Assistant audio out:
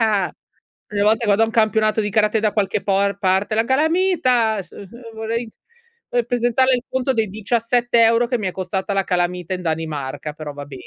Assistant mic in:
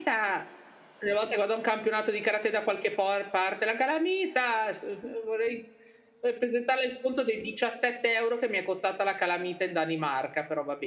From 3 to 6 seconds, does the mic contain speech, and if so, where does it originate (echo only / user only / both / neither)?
echo only